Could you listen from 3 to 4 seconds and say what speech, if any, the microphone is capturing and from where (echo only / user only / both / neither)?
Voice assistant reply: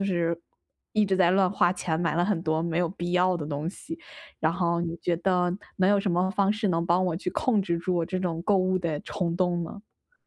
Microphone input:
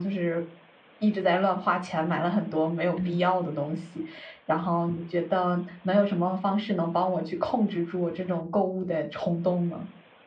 both